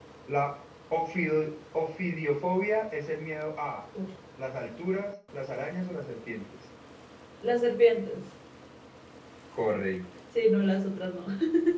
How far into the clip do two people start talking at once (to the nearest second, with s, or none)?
none